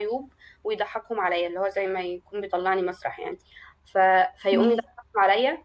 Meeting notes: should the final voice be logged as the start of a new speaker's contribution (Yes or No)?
No